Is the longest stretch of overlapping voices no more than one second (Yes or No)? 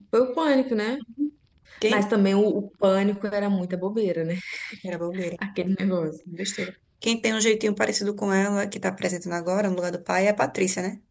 Yes